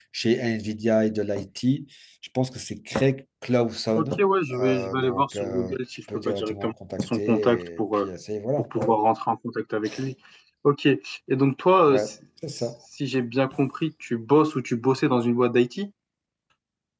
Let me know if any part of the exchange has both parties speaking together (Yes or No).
Yes